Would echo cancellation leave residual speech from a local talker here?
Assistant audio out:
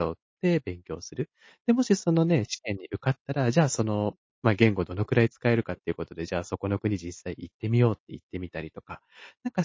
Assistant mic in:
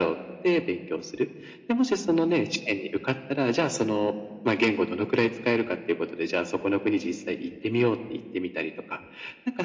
No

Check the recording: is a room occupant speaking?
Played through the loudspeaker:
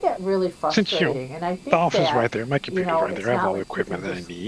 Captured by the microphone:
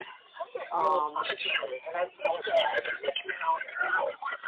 Yes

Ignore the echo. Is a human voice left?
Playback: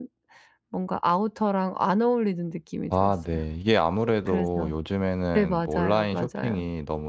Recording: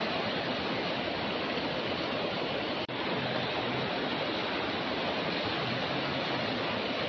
No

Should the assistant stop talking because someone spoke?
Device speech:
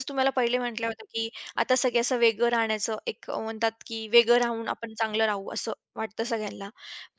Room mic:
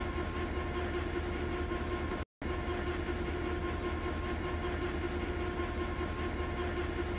No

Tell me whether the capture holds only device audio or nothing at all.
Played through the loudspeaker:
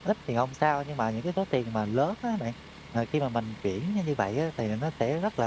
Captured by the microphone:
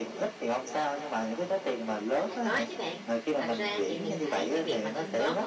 No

